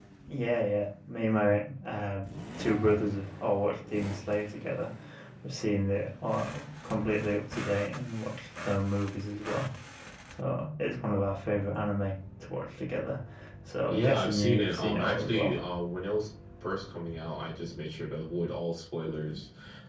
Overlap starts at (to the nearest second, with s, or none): 14 s